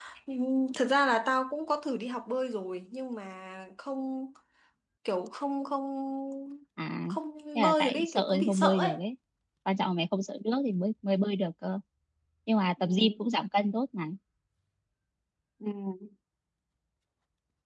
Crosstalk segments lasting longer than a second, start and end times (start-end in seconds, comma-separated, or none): 7.5-8.9